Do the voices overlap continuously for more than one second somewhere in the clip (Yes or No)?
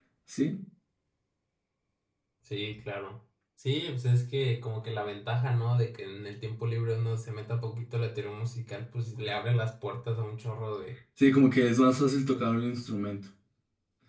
No